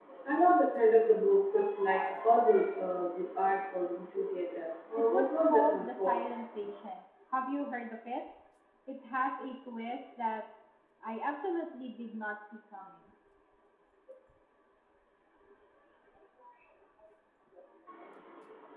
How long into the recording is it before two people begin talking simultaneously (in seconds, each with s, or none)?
5.0 s